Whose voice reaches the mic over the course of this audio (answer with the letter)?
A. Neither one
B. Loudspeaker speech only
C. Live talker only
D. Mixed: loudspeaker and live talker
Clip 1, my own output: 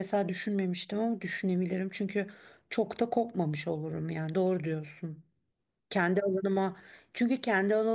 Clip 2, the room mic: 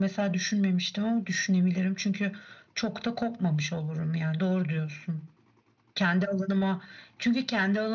B